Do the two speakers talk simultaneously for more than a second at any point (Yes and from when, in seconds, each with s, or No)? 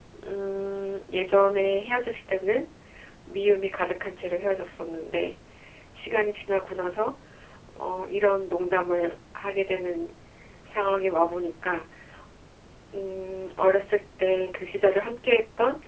No